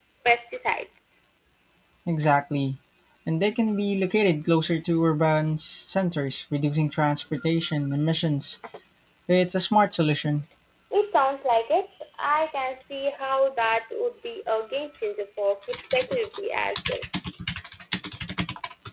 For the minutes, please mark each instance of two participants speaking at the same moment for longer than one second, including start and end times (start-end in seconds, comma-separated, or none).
none